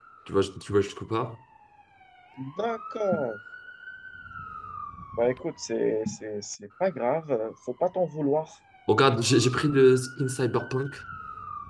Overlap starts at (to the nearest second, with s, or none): none